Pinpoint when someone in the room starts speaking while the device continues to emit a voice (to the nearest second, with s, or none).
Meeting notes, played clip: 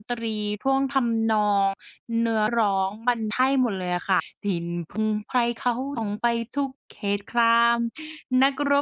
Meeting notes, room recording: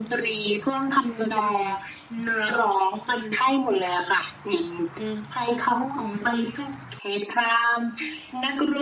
1 s